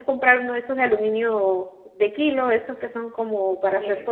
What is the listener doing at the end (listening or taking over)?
listening